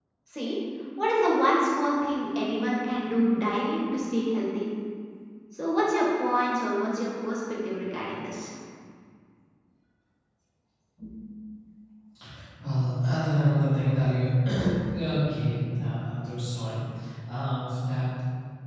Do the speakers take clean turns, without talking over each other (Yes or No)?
Yes